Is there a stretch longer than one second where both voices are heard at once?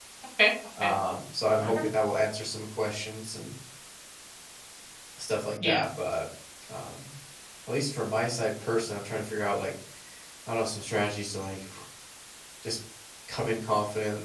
No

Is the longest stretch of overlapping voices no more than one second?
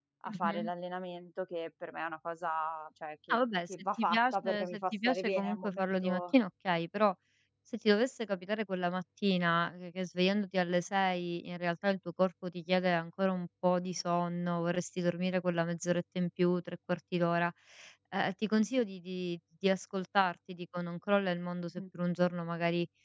No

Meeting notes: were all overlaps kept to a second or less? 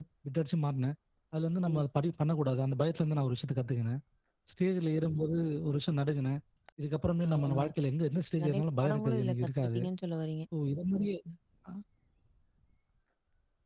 No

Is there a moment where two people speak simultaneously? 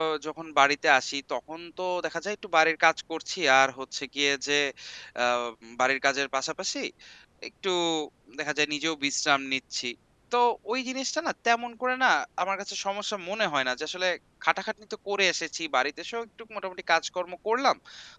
No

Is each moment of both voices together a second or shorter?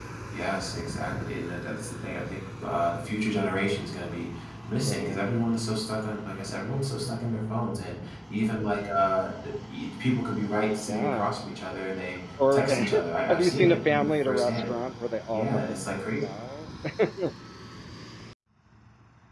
No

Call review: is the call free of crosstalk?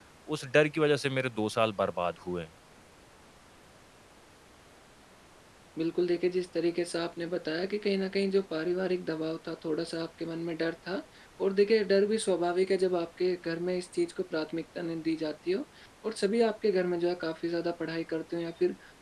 Yes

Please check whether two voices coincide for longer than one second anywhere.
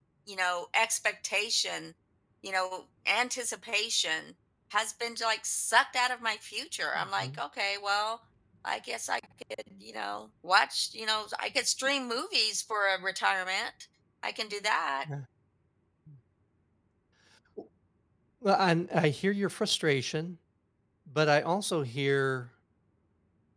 No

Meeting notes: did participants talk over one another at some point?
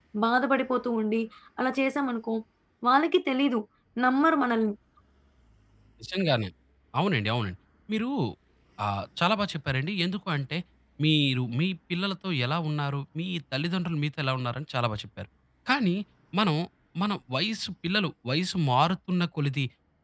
No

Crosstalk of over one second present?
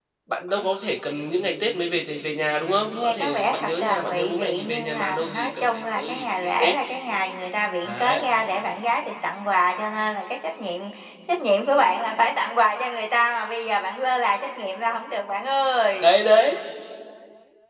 Yes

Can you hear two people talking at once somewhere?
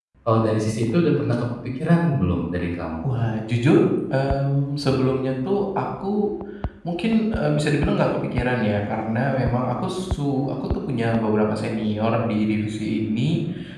No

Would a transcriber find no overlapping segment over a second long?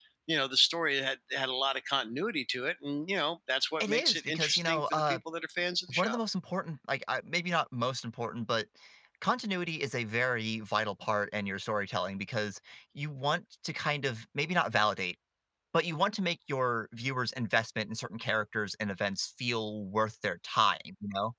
No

